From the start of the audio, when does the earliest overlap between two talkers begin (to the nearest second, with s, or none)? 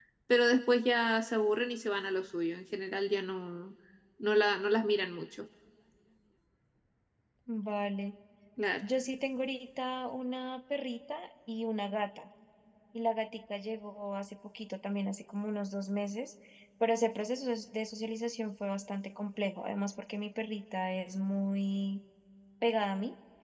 none